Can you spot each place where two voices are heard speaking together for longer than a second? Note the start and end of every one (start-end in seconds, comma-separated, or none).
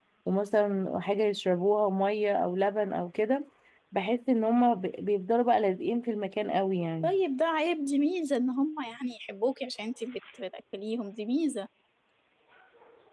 none